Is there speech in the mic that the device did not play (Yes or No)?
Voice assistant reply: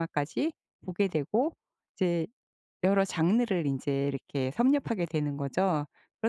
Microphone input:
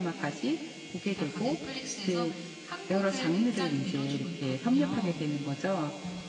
Yes